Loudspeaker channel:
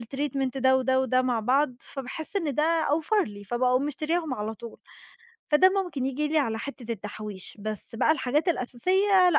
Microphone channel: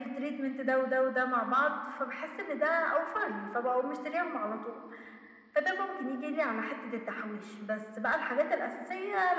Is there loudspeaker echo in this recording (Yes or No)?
Yes